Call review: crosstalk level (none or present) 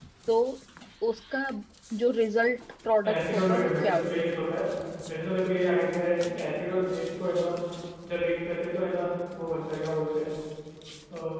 present